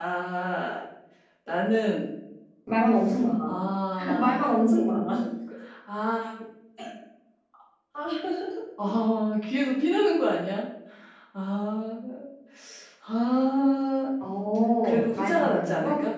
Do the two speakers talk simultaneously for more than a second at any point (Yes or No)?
Yes